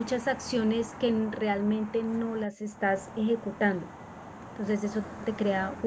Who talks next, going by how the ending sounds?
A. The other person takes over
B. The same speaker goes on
B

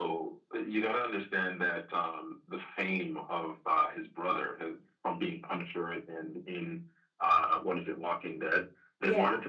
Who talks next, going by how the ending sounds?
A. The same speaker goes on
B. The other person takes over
A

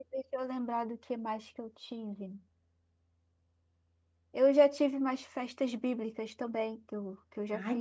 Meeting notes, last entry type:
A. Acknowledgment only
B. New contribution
B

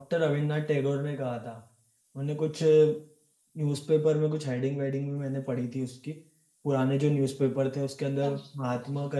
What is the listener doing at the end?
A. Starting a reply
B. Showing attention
B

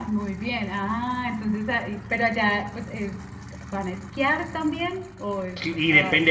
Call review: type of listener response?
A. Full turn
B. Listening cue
A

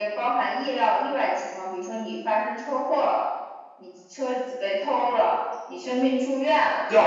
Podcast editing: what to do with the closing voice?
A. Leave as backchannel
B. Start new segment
B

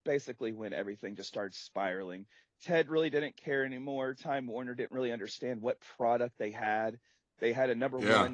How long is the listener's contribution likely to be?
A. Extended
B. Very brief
B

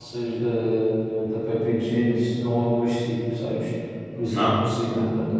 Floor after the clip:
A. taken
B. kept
B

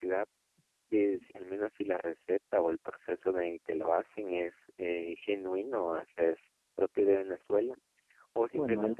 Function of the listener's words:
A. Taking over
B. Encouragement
B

